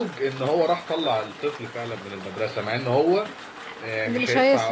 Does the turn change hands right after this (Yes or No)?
No